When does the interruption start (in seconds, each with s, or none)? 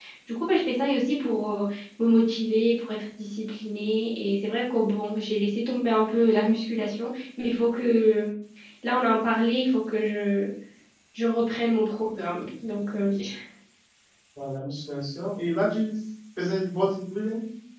none